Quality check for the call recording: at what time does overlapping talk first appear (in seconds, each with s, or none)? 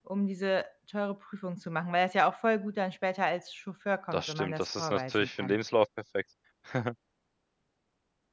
4.1 s